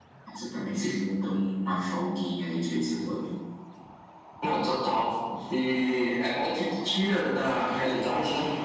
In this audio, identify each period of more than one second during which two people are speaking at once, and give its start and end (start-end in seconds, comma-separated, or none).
none